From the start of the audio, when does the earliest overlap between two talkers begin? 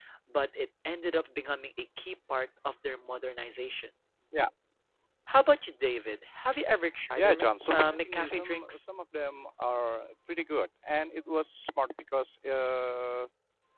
7.2 s

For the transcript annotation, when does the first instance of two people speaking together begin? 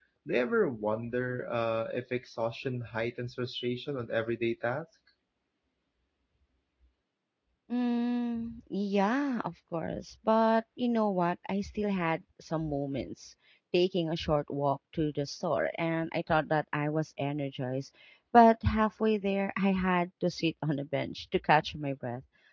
none

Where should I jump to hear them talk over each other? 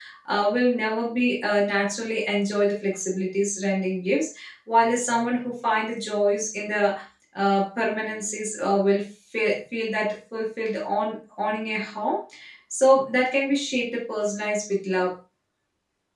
none

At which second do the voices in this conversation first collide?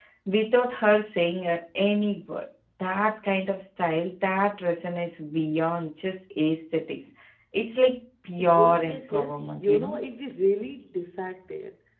8.6 s

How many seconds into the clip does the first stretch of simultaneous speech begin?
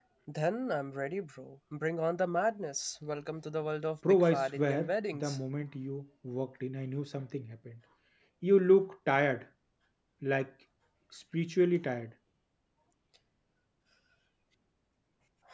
4.0 s

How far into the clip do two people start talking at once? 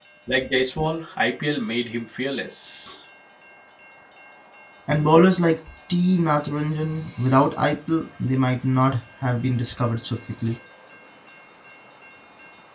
none

